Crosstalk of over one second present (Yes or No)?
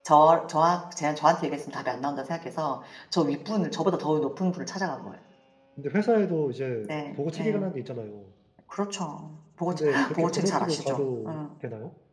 Yes